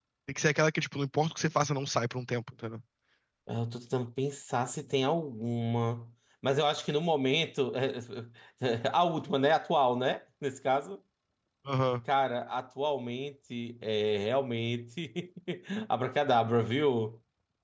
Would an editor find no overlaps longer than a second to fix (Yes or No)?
Yes